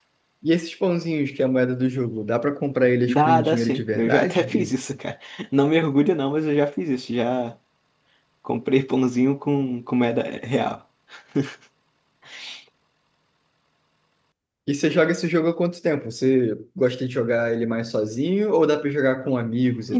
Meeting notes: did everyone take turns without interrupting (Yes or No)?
No